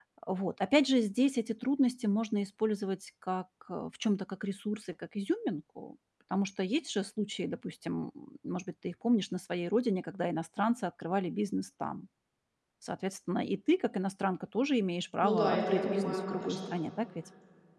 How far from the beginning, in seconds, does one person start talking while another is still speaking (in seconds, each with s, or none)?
15.2 s